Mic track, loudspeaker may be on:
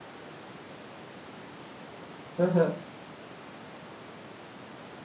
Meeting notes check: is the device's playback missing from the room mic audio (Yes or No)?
Yes